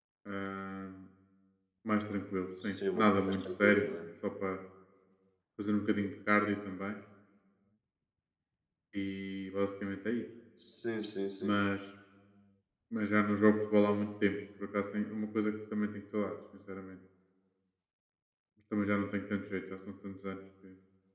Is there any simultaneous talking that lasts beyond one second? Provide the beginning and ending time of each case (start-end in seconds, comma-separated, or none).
2.6-3.8